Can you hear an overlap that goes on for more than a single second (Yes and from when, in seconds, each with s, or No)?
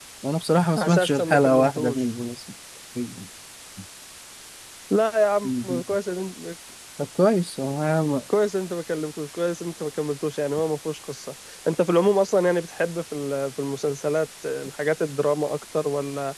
Yes, from 0.8 s